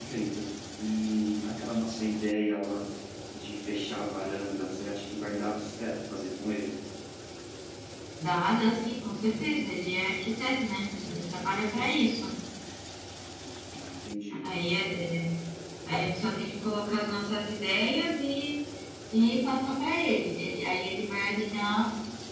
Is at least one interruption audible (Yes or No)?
No